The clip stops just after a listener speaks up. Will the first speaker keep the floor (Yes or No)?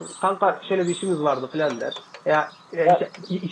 Yes